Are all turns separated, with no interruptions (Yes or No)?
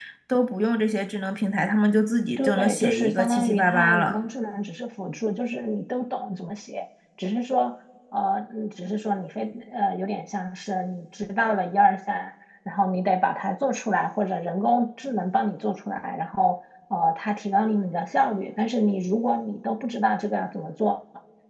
No